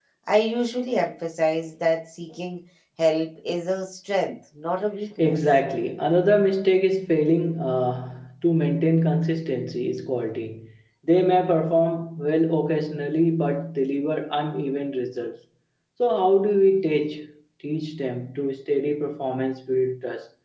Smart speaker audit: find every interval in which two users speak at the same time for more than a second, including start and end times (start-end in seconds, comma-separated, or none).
none